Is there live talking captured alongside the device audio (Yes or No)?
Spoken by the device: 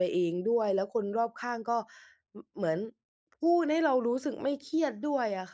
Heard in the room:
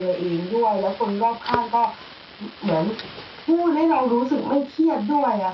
No